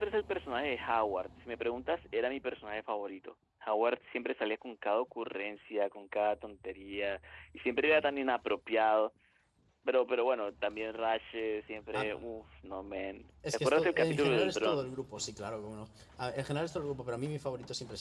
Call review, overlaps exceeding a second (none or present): present